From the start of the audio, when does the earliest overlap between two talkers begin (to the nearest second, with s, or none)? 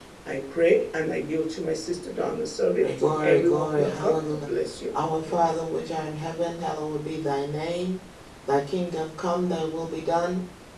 3 s